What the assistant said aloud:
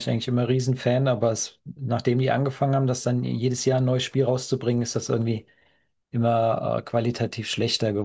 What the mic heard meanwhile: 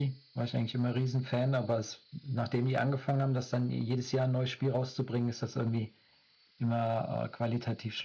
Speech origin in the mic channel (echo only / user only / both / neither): echo only